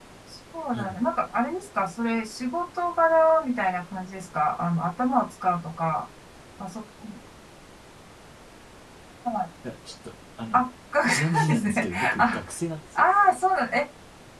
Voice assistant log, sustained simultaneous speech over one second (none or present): present